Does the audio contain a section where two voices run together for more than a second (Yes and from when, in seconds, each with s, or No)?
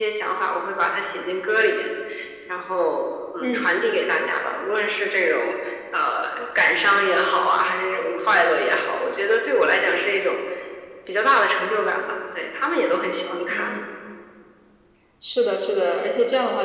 No